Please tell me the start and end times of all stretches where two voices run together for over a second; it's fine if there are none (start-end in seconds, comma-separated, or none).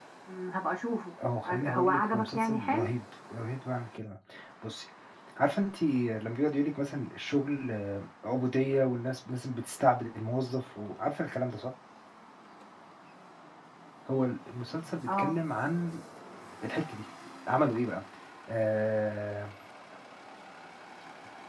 1.4-2.9